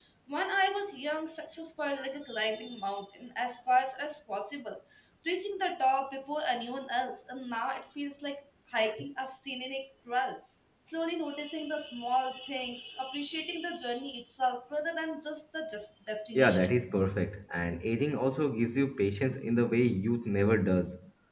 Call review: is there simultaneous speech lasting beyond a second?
No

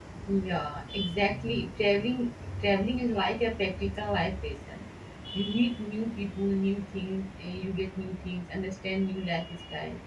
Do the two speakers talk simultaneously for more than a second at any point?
No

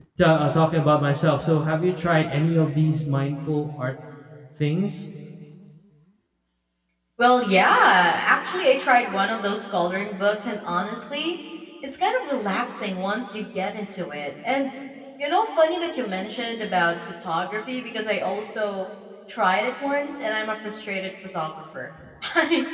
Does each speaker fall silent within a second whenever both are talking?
Yes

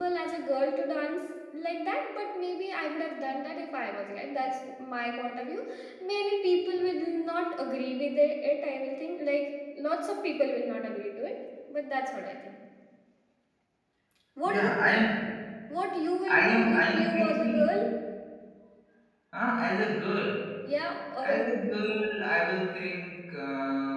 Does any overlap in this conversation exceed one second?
Yes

